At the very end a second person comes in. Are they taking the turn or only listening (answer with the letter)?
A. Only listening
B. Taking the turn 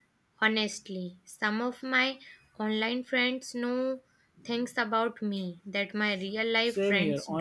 B